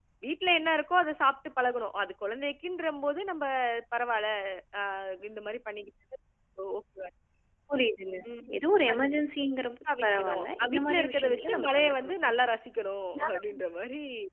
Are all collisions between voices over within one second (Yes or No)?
No